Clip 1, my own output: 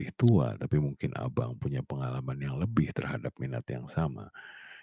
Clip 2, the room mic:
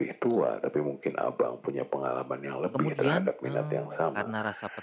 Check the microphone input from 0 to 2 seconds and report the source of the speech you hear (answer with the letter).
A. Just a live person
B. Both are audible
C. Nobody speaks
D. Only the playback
D